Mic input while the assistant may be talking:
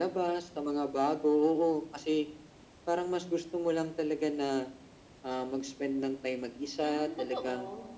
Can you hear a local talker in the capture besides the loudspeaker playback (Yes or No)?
Yes